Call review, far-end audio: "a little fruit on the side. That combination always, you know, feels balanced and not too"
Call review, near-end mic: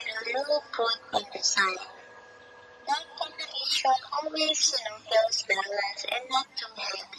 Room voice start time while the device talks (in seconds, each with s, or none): none